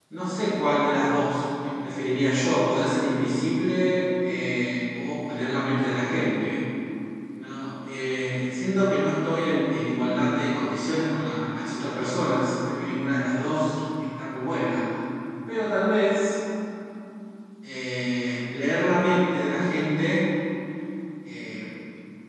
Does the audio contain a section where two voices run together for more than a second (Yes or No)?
No